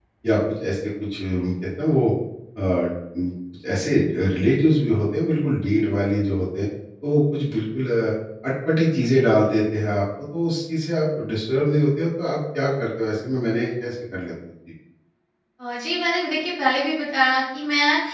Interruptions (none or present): none